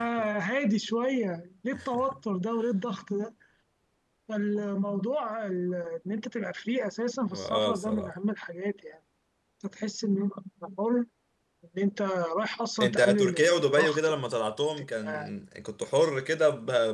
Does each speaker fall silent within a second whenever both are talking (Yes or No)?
No